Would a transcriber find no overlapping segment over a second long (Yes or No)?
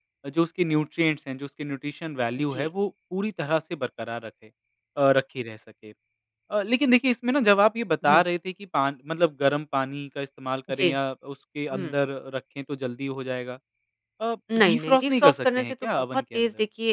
No